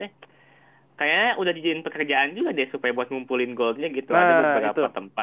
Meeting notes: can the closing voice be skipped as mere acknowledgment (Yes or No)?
No